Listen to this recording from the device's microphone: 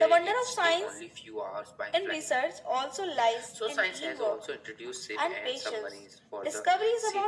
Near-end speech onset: none

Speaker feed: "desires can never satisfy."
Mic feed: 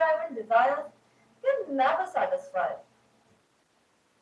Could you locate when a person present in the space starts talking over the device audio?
none

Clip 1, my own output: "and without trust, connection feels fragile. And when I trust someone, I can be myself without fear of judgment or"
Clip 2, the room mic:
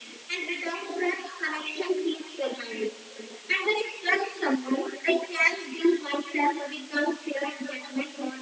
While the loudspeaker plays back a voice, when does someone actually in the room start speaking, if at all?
none

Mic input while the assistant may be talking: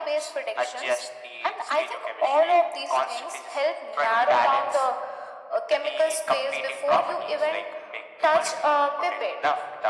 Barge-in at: none

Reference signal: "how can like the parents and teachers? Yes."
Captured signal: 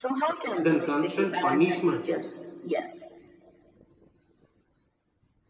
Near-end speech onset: 0.6 s

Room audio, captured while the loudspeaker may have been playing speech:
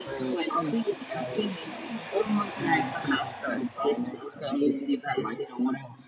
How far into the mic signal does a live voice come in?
none

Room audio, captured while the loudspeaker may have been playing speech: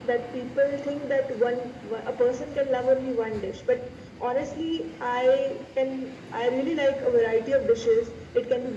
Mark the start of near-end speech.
none

